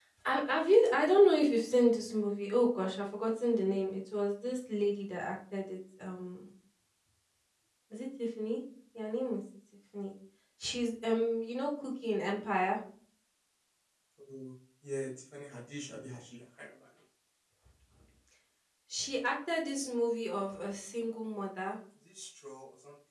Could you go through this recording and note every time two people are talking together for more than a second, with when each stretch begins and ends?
none

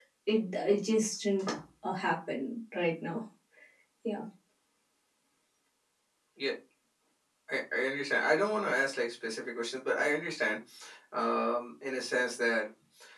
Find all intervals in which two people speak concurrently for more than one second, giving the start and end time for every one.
none

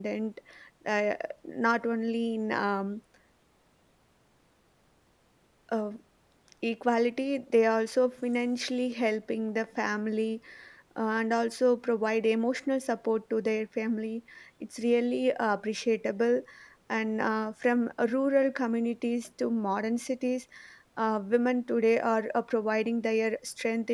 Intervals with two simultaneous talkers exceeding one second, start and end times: none

